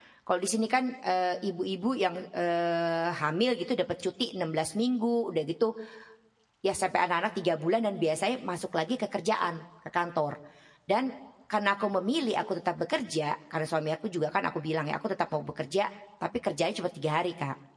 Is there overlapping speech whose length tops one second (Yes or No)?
No